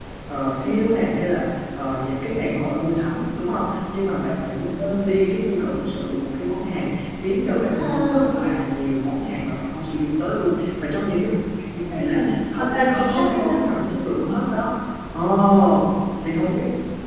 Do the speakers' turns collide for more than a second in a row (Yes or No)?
Yes